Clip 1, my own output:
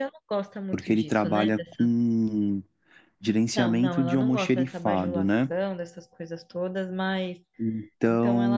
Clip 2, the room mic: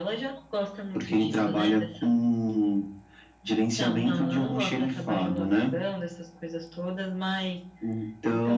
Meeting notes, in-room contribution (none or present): none